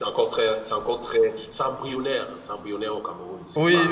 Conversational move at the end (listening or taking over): taking over